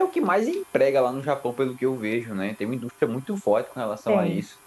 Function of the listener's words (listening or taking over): taking over